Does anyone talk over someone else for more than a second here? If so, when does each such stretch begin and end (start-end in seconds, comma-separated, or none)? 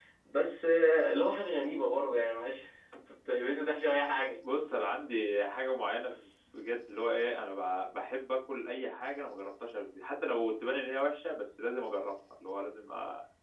none